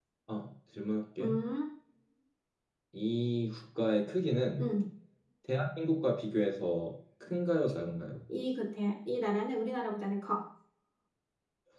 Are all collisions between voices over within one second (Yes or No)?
Yes